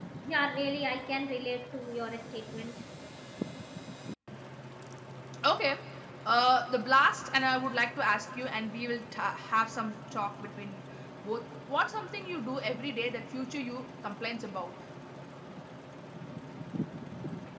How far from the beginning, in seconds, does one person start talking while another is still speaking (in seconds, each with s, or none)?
none